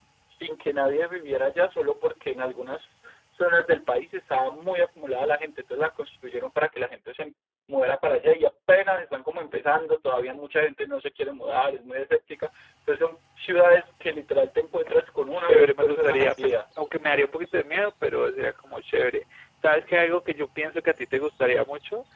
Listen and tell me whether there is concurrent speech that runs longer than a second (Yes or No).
Yes